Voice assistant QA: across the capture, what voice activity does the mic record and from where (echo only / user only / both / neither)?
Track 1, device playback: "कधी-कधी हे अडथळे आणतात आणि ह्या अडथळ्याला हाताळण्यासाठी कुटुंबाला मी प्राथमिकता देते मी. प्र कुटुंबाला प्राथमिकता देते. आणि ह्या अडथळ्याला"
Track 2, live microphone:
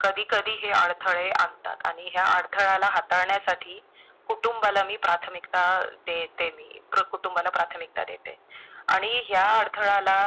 echo only